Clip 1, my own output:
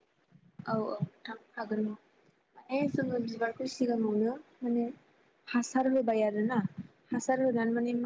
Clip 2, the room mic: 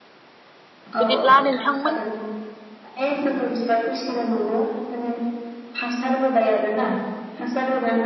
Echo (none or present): present